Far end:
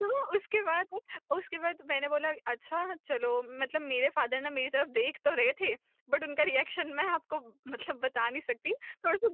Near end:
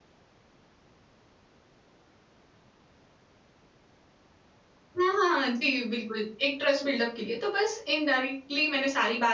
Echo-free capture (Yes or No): Yes